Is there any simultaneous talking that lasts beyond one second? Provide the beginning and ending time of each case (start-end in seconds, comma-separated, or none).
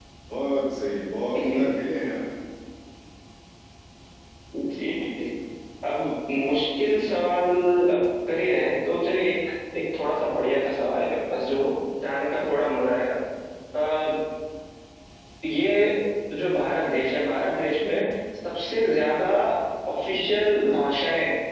none